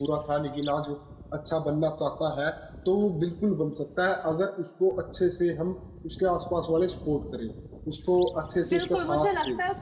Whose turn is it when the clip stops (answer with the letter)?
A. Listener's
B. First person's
A